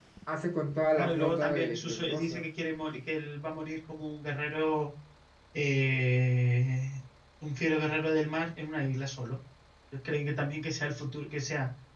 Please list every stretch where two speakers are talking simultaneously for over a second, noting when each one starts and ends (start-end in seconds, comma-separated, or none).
1.0-2.4